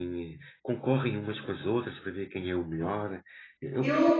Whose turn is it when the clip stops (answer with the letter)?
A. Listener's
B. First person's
B